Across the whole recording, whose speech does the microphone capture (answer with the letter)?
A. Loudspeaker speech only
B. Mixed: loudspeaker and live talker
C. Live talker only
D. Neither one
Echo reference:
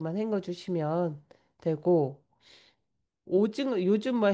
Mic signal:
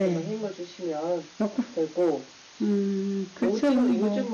B